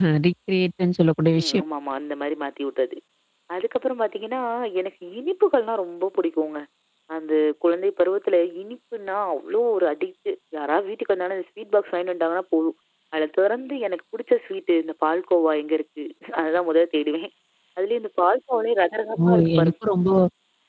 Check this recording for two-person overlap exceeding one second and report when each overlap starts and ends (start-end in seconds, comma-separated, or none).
none